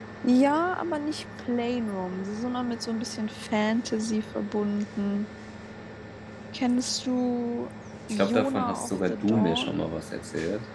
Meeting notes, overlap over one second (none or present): present